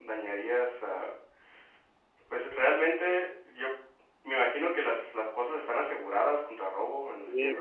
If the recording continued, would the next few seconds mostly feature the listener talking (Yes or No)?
Yes